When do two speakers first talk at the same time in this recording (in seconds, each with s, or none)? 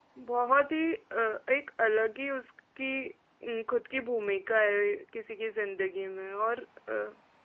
none